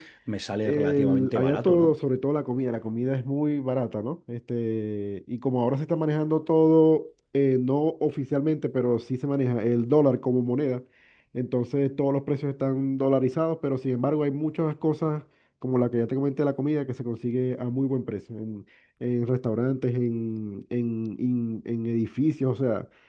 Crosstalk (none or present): present